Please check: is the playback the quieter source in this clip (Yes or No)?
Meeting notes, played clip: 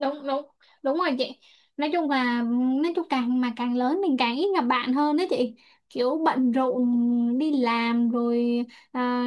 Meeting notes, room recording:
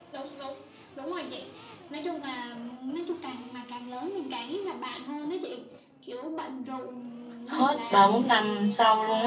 Yes